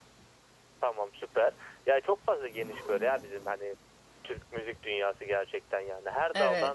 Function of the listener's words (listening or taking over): listening